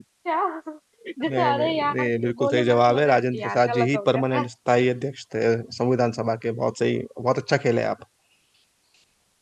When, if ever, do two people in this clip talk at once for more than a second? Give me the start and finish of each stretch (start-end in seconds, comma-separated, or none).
1.3-4.5